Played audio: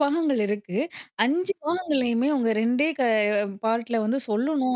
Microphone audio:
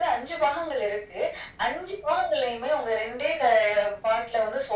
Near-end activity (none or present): none